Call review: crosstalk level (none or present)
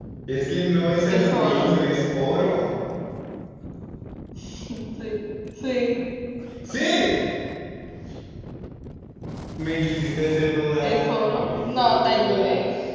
present